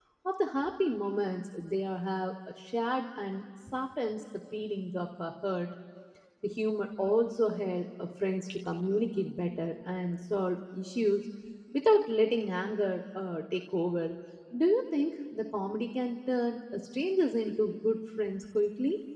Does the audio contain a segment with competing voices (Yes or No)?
No